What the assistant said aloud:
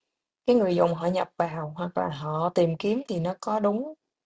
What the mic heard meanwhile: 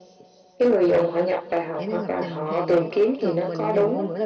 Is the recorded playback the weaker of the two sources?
No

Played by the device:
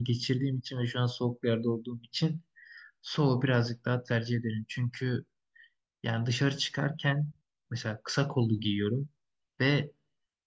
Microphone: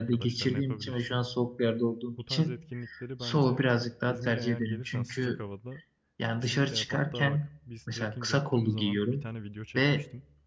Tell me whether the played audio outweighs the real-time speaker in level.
Yes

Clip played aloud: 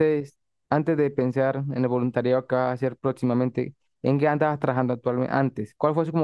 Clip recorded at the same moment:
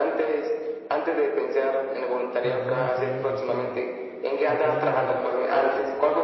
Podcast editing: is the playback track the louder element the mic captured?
Yes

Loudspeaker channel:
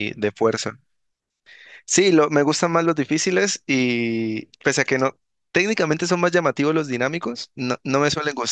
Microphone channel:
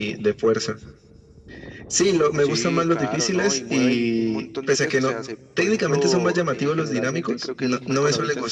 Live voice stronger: No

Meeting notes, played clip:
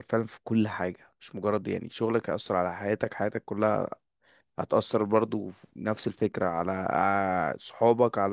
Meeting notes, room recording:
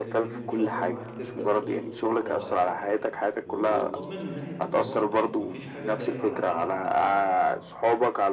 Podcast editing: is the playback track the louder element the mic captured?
Yes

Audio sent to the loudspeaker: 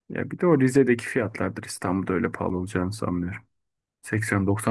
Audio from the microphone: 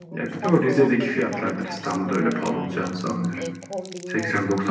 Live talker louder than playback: No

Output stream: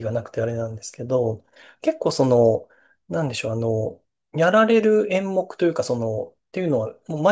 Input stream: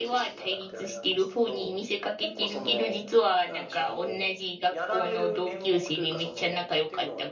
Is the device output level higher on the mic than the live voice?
No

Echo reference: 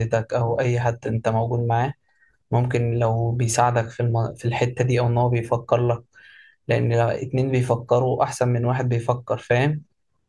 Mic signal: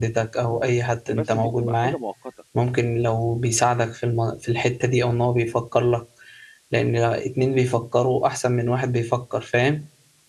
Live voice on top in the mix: No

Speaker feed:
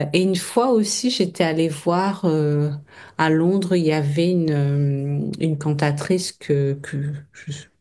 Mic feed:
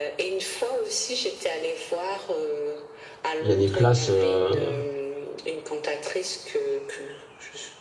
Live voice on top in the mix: Yes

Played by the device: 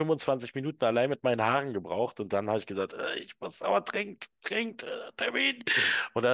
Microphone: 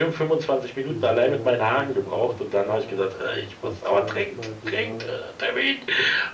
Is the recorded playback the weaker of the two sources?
No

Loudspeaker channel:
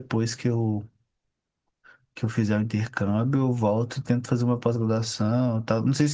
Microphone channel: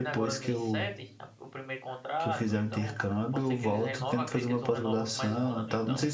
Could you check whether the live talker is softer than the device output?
Yes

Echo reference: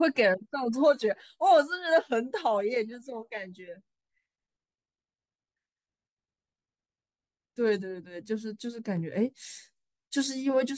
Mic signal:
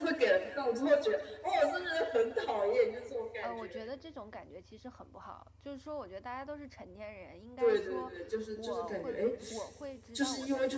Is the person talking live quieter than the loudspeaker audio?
Yes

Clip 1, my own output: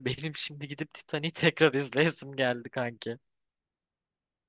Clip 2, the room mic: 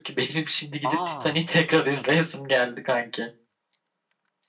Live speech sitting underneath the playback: Yes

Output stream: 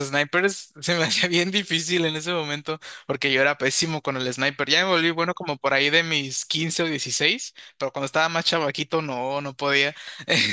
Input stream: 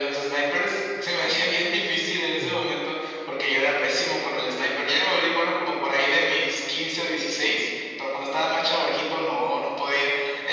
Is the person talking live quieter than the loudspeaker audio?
Yes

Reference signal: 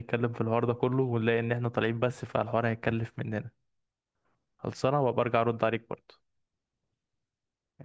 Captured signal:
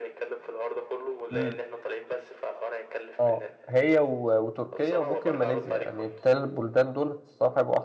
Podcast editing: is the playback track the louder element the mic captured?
No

